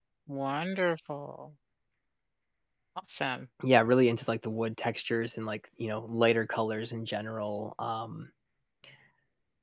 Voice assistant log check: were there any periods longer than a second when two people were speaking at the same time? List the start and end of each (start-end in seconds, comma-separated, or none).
none